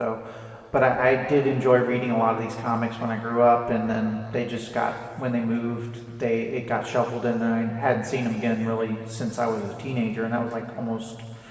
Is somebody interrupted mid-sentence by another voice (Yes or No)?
No